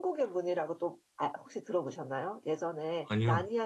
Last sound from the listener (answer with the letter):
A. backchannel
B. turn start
A